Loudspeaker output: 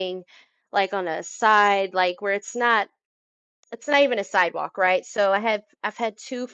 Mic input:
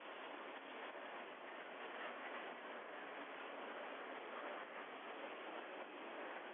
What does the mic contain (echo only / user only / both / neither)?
neither